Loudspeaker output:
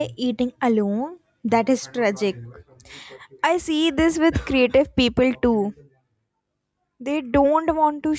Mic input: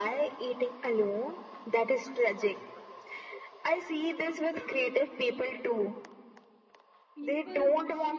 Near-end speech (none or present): present